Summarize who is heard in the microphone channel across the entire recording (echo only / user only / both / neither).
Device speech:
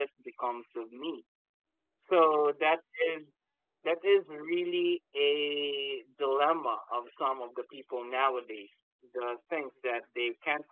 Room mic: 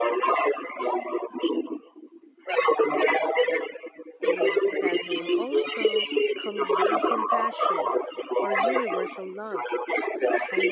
both